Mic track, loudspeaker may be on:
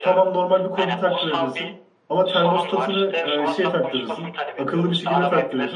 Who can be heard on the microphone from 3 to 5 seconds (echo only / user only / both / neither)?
both